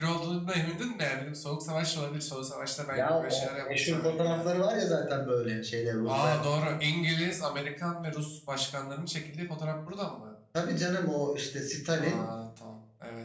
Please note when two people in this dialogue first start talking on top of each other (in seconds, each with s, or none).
2.9 s